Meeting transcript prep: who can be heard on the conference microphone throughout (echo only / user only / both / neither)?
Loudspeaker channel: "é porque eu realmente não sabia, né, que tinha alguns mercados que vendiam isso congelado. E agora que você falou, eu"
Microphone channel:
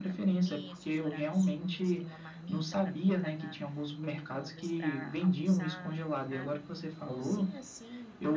both